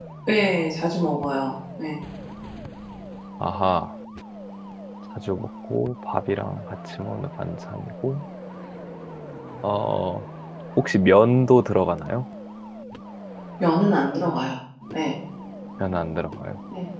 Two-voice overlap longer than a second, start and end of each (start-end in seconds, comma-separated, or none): none